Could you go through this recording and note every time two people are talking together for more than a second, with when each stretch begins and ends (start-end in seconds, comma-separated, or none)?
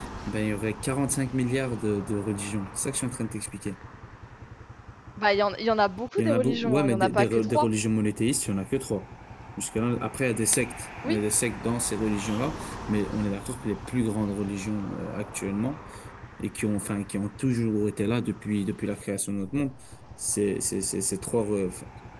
6.2-7.7